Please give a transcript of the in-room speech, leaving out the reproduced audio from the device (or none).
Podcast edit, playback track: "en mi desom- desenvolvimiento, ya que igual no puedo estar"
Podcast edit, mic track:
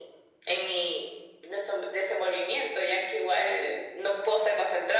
none